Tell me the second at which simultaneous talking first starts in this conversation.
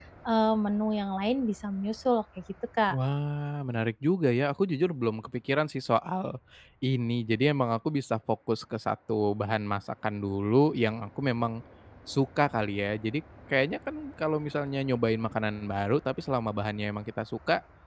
none

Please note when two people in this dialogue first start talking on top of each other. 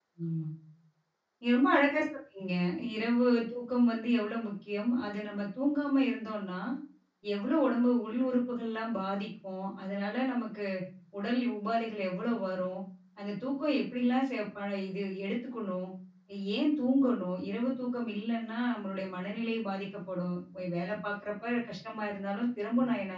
none

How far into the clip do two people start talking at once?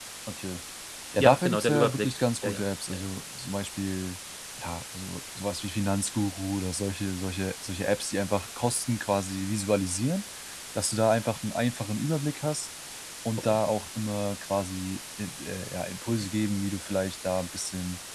1.2 s

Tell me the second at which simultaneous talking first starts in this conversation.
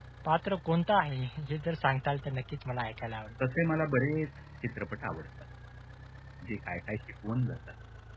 none

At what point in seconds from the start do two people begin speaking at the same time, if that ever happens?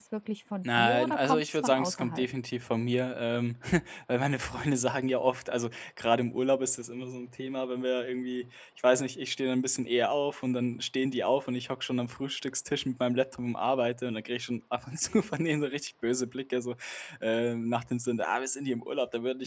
0.8 s

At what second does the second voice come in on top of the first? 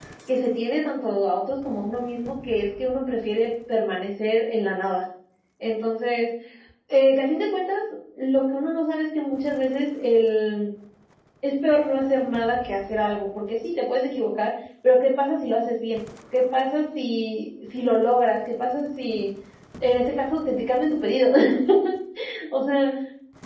none

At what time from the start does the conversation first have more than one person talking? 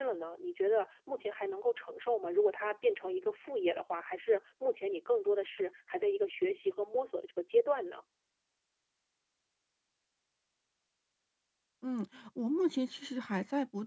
none

